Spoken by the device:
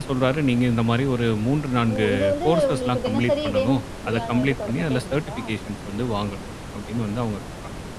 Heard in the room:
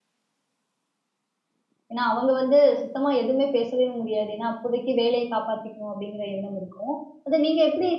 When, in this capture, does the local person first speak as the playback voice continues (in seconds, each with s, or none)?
1.9 s